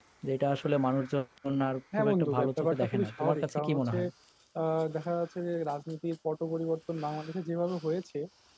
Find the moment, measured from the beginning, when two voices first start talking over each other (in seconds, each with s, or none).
1.9 s